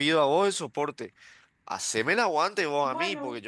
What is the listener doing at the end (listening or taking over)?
listening